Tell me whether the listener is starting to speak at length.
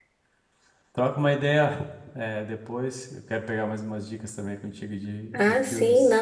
Yes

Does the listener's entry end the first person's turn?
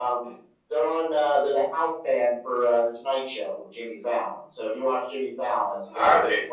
Yes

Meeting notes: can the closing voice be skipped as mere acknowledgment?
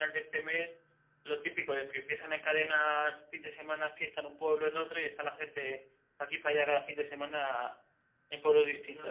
No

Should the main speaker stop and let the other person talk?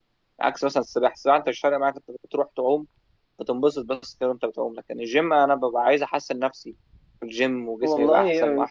Yes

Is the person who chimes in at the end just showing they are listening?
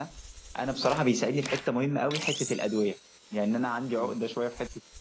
Yes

